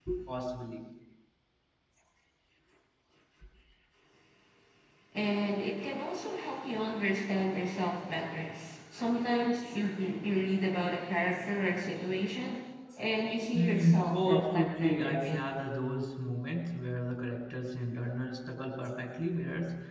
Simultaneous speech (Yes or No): Yes